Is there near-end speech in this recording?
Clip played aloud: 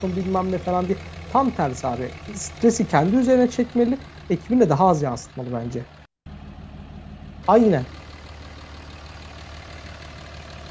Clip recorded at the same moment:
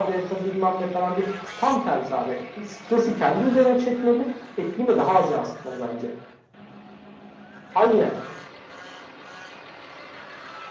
No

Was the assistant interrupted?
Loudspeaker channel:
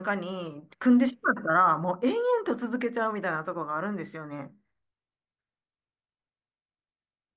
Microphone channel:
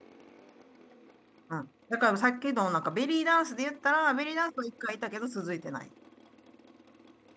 Yes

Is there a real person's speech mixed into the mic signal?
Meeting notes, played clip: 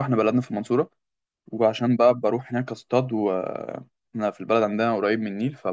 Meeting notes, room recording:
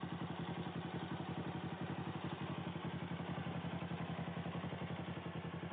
No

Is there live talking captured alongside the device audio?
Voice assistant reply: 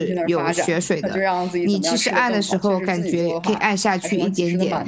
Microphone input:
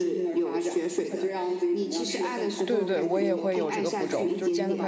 Yes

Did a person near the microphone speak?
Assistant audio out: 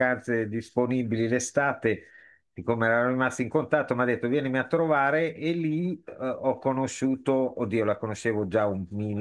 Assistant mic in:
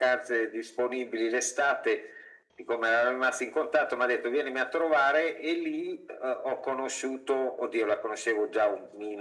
No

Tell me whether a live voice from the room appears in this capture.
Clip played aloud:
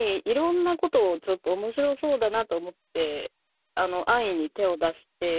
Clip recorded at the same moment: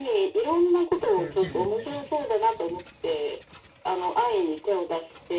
Yes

